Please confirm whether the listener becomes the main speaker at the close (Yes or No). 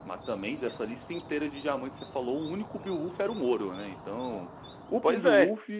No